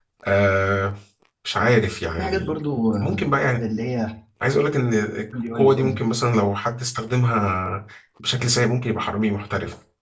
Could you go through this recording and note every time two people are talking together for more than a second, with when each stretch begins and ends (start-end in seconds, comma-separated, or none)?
none